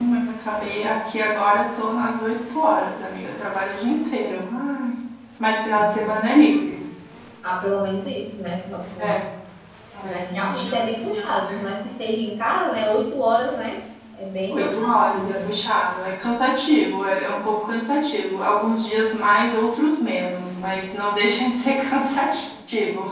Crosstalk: present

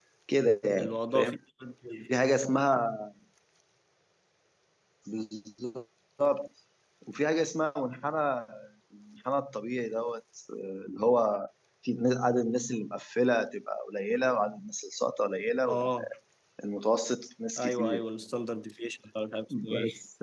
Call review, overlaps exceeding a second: none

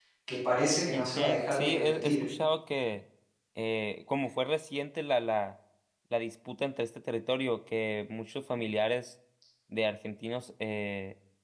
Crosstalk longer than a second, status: present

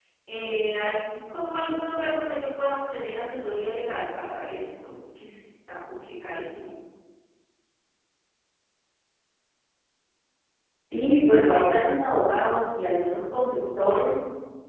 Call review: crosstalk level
none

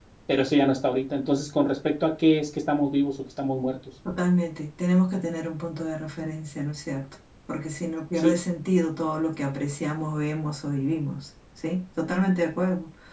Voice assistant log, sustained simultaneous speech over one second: none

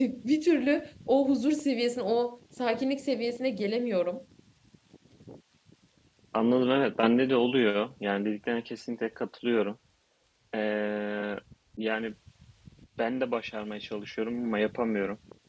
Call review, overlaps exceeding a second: none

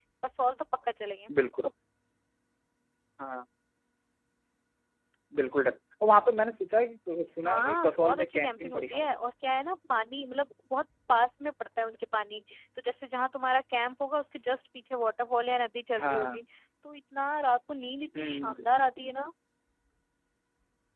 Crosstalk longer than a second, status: present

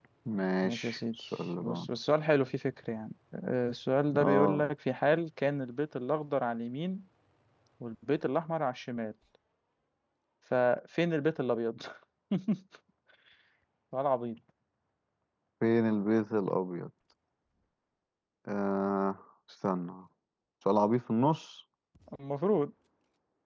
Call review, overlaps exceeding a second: present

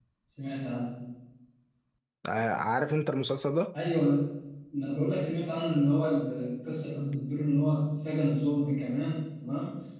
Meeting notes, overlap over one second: none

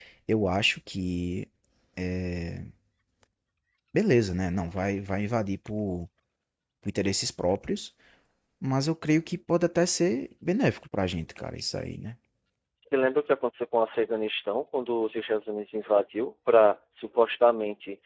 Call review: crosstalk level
none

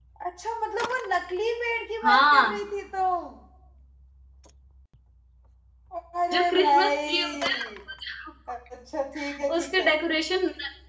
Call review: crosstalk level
present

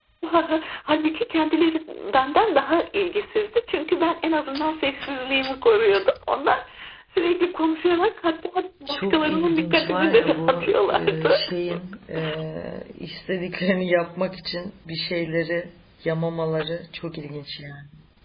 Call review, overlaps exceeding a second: present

